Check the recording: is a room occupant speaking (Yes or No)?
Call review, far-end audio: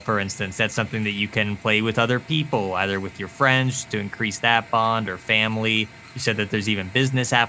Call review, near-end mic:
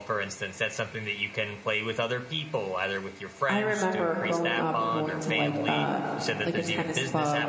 Yes